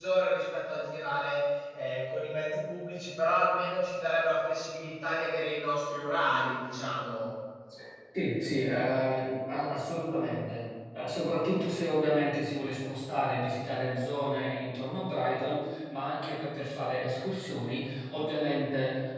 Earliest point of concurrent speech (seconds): none

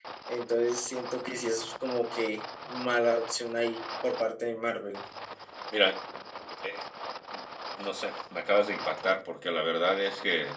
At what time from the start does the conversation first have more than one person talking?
none

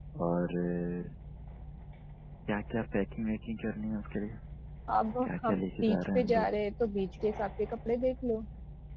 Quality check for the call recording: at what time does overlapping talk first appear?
5 s

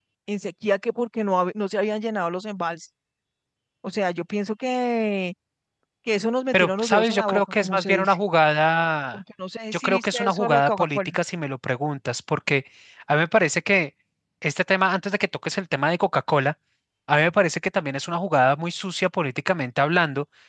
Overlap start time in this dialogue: 7 s

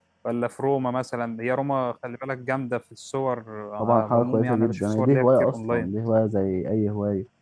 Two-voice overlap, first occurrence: 4 s

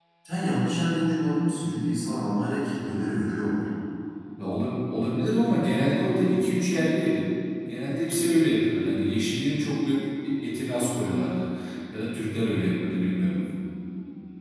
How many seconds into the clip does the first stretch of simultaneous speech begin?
none

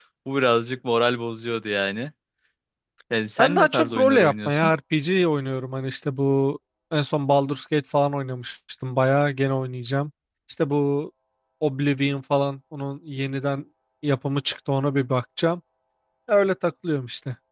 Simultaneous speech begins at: 3 s

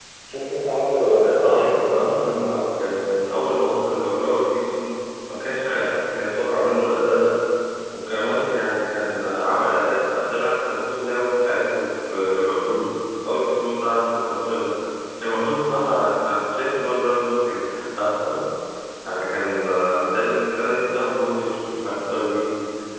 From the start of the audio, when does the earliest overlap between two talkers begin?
1 s

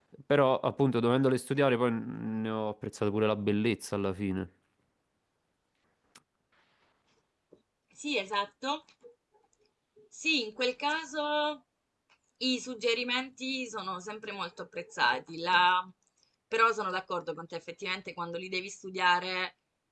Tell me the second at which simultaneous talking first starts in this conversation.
none

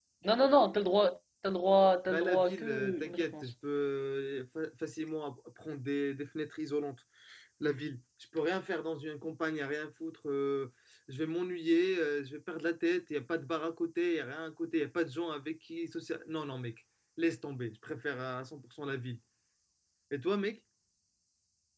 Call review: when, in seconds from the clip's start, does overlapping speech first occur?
2 s

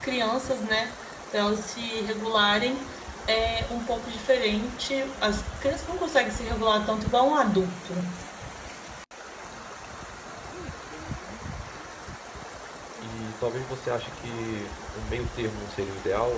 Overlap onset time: none

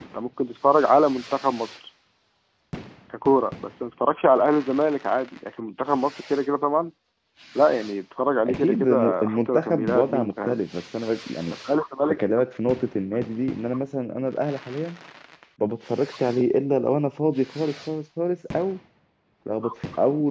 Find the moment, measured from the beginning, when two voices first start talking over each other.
8 s

